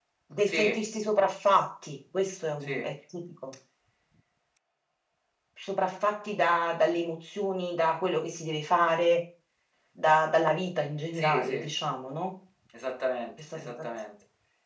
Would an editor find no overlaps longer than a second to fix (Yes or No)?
Yes